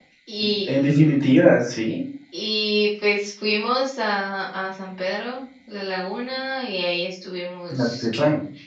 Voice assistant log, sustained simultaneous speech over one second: none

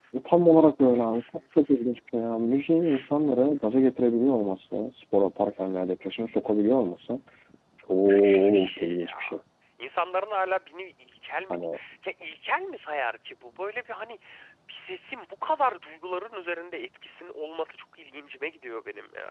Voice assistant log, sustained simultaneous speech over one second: present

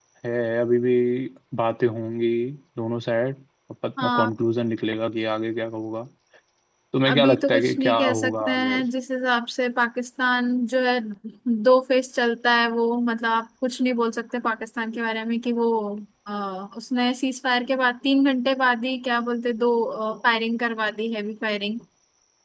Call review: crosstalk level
present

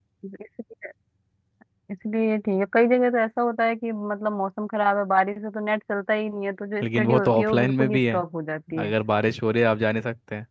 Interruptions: present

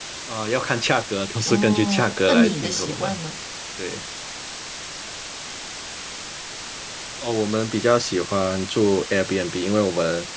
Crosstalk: present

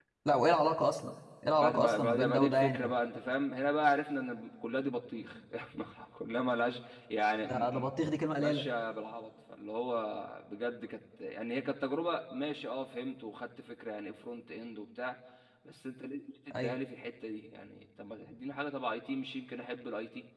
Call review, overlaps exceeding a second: present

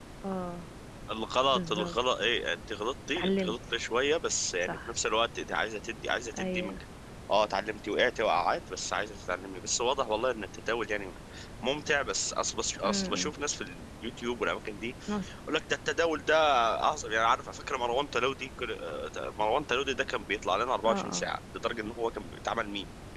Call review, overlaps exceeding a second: none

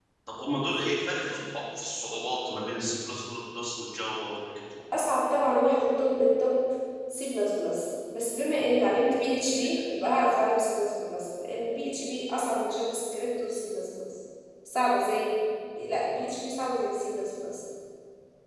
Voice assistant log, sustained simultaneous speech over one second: none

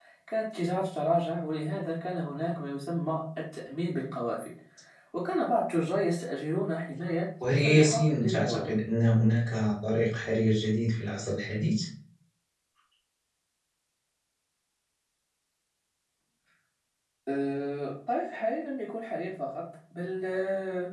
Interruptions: present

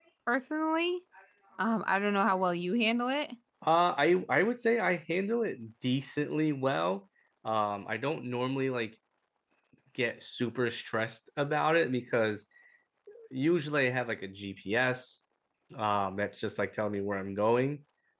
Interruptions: none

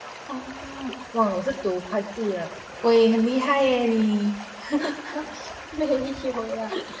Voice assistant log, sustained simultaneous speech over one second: none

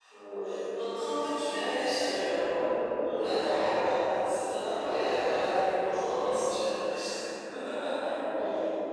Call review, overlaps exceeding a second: none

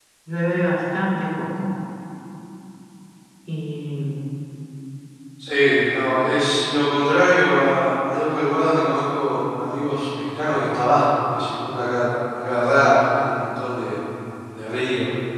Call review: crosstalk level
none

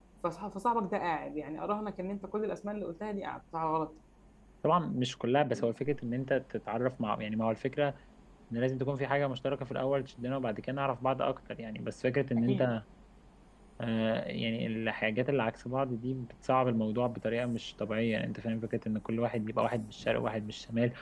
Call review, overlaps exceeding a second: none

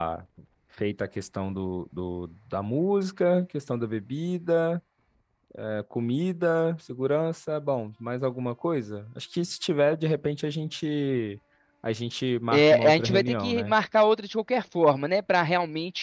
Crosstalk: present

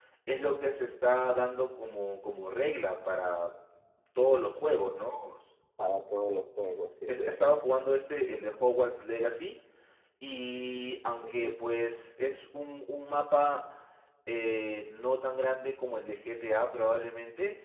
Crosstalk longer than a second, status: none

